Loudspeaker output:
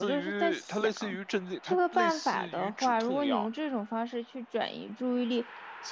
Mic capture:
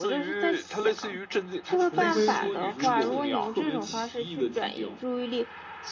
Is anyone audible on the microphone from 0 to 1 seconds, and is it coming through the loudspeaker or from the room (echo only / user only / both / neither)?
echo only